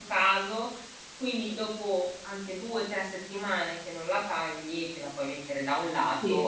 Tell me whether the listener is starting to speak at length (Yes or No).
No